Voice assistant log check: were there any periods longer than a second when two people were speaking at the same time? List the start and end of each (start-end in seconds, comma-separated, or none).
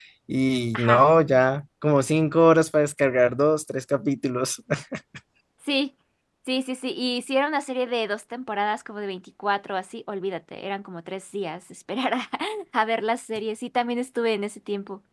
none